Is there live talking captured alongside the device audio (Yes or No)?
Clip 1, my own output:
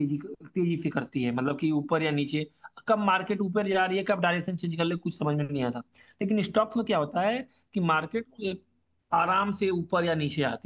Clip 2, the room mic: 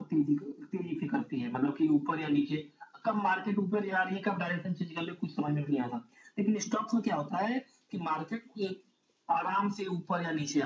No